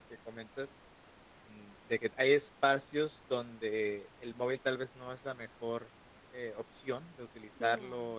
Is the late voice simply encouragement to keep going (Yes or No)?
Yes